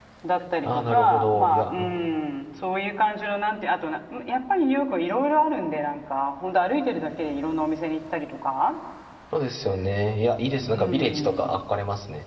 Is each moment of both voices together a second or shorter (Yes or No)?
No